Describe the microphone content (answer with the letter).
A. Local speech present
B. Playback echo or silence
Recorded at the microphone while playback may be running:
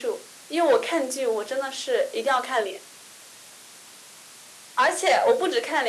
B